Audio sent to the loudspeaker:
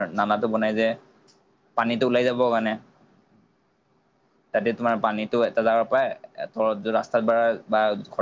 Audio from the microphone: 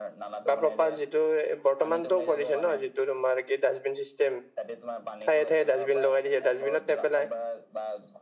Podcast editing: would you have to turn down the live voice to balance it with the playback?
Yes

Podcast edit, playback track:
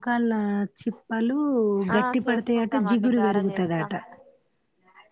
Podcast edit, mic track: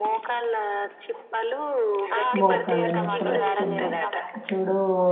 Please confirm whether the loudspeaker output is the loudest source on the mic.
No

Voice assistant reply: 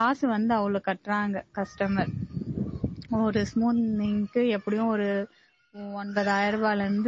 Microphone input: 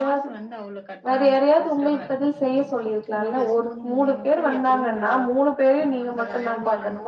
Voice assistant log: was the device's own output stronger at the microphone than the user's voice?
No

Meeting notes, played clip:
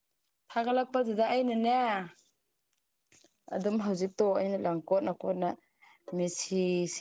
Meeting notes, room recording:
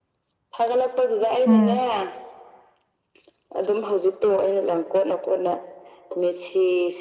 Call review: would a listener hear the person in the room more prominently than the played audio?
Yes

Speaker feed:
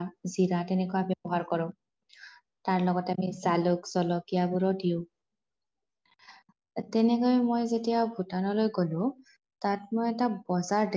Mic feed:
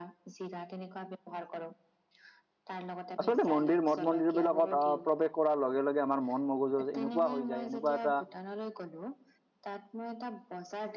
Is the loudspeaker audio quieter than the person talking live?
Yes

